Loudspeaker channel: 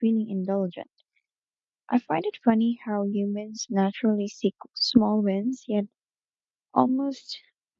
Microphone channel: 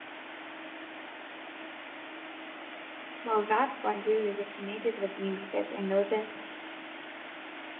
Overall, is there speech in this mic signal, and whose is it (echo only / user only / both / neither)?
user only